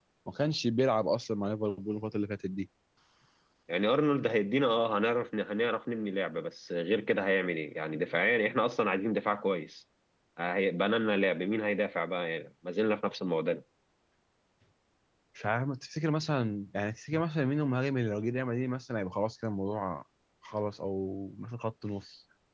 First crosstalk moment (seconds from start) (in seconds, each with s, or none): none